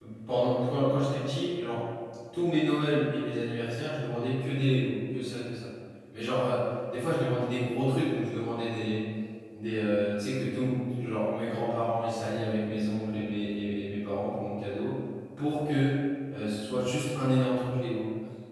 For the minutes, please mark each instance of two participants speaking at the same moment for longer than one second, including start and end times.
none

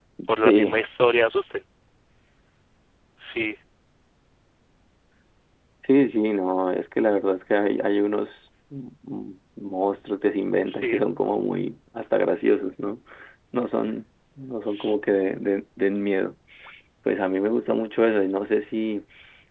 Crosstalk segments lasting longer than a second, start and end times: none

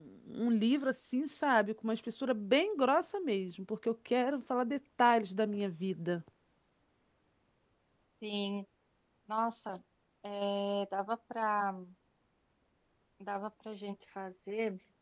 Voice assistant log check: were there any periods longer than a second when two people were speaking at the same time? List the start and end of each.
none

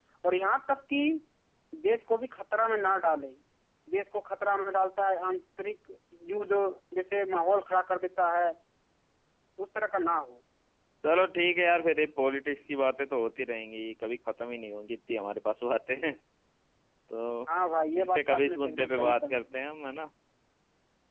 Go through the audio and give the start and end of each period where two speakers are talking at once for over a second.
18.0-19.3

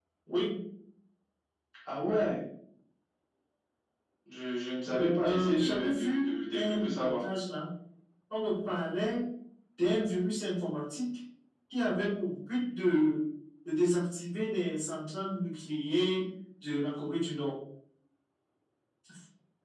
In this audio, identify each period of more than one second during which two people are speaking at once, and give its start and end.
4.9-7.2

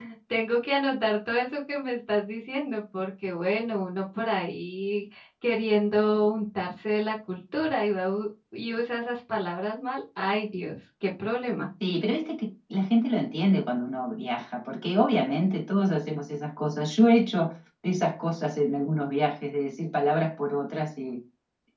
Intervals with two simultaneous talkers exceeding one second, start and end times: none

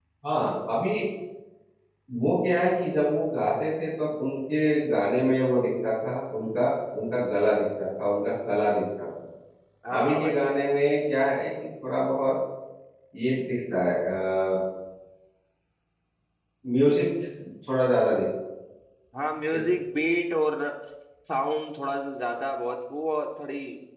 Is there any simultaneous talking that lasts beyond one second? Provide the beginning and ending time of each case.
none

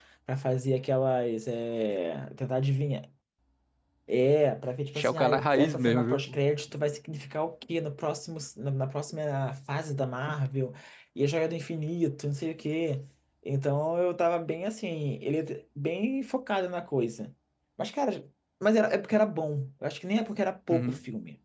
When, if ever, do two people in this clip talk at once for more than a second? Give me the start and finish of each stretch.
5.0-6.4

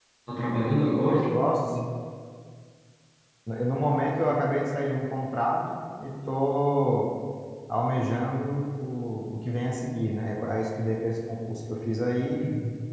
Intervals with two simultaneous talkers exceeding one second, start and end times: none

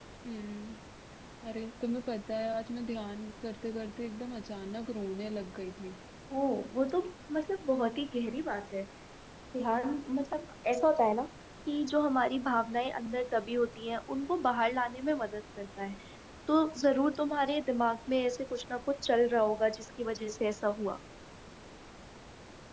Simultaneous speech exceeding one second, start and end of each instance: none

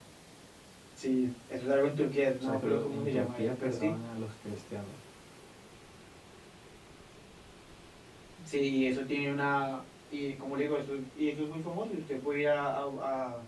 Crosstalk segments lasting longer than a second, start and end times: 2.4-3.9

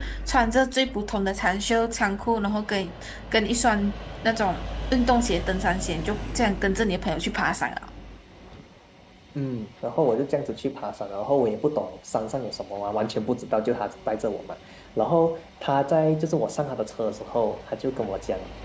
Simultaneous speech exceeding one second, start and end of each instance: none

